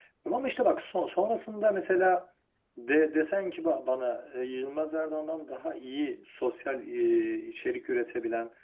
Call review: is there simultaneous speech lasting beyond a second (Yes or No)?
No